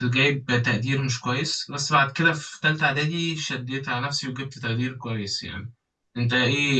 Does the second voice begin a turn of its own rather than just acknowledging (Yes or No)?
No